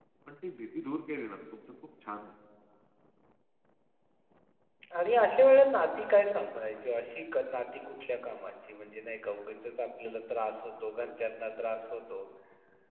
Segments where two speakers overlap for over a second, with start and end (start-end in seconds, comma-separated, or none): none